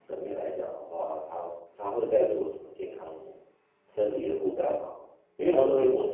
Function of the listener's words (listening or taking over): listening